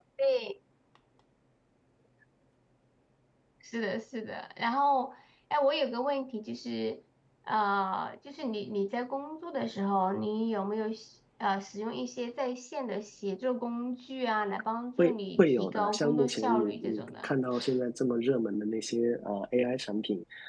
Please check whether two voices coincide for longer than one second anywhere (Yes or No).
Yes